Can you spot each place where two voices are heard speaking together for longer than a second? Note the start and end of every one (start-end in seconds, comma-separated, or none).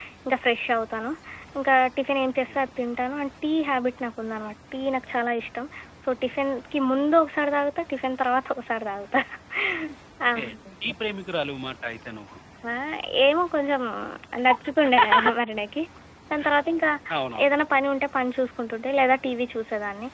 none